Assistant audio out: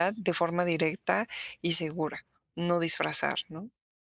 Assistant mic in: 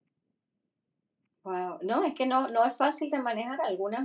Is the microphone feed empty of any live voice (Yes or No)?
No